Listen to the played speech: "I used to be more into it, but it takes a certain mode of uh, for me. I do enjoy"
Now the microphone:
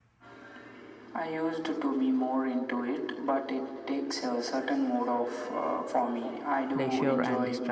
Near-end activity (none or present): present